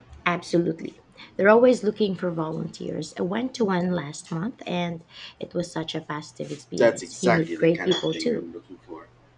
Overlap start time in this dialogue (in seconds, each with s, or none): 6.8 s